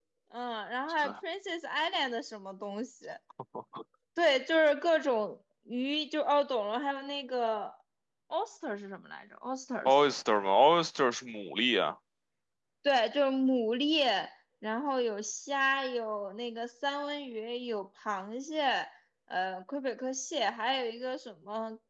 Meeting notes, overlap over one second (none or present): none